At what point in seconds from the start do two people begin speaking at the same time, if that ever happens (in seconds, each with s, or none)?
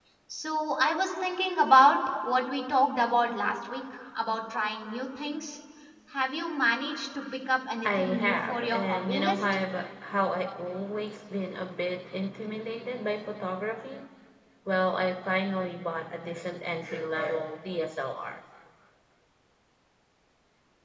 7.8 s